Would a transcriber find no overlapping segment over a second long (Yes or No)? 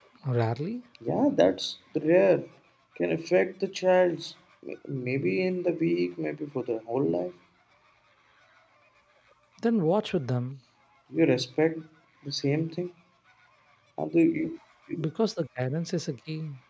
Yes